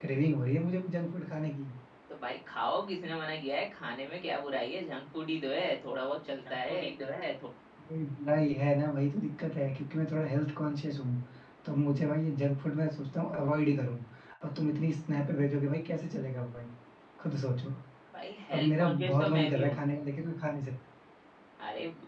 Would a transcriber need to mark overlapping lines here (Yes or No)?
Yes